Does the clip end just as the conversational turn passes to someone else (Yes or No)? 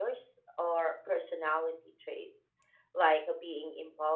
No